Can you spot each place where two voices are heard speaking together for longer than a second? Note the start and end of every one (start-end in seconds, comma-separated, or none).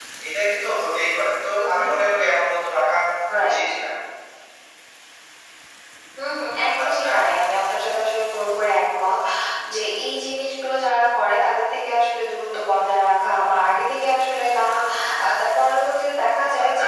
none